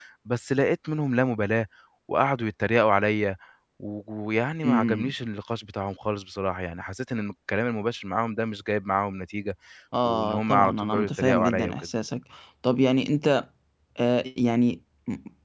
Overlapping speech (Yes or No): Yes